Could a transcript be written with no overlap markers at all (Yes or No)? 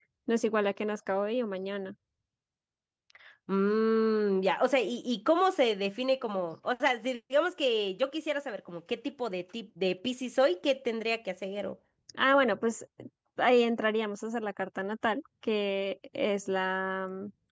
Yes